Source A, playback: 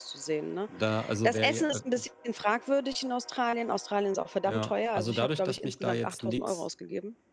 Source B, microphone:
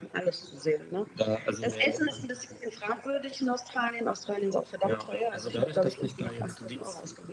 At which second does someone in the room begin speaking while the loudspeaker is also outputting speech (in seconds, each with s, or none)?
none